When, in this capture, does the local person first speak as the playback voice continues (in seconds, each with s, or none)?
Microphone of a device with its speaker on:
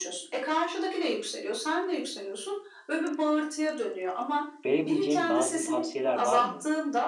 4.7 s